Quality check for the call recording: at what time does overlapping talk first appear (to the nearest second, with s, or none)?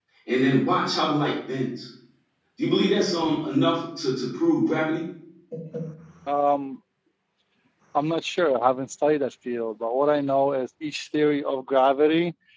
none